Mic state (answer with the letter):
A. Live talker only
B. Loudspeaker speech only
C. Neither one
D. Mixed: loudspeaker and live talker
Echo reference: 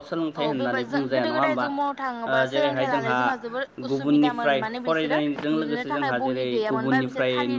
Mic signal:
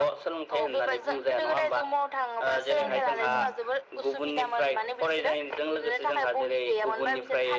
D